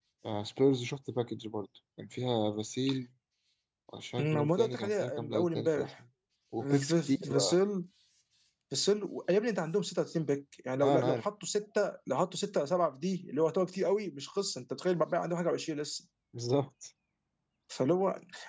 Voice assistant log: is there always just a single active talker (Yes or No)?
No